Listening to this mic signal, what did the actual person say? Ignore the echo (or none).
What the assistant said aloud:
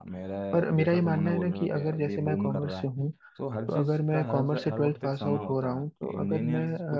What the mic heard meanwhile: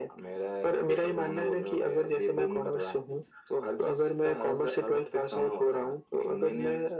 none